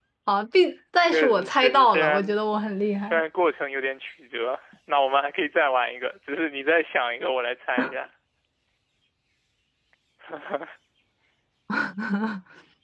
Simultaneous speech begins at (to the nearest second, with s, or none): 1 s